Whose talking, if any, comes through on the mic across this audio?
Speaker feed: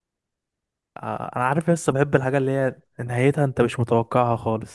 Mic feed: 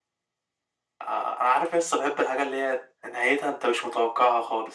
echo only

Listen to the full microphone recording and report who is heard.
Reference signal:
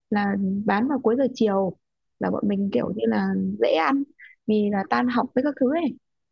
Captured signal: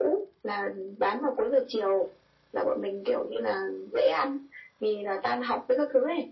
echo only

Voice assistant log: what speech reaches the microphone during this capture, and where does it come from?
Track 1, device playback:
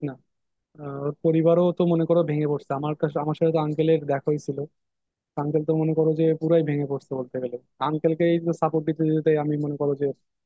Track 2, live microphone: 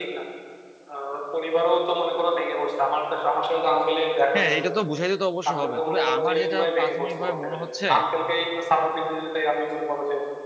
both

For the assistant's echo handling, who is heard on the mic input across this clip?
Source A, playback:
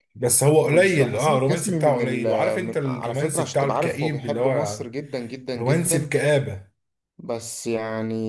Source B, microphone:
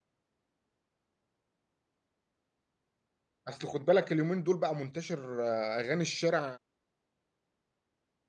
user only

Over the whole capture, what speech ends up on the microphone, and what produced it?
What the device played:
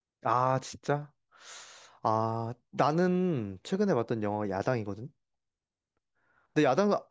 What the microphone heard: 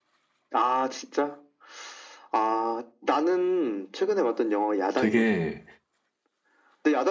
both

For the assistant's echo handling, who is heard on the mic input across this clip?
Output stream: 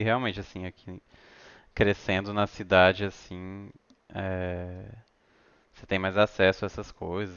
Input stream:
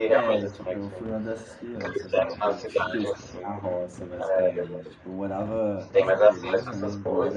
both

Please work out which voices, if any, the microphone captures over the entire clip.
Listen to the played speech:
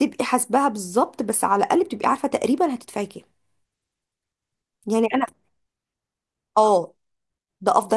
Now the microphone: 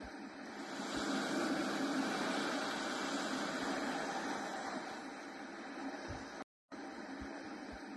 neither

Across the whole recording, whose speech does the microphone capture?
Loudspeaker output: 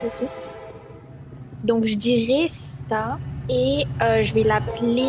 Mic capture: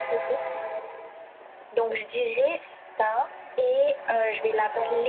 echo only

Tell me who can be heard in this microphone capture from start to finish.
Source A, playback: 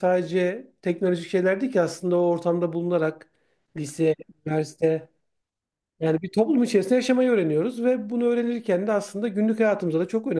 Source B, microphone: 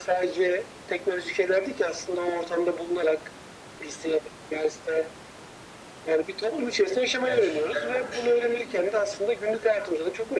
both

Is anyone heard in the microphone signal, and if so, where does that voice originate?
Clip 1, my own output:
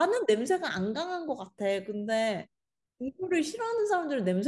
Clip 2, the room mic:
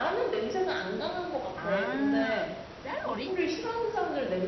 both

